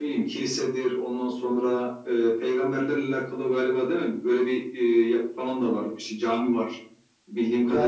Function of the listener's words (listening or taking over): taking over